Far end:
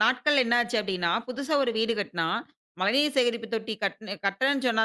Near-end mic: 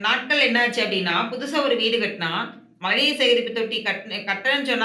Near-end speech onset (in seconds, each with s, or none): none